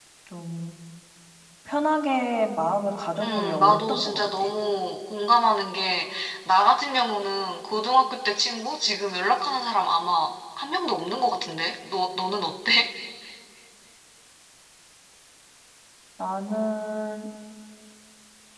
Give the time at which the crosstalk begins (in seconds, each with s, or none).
3.2 s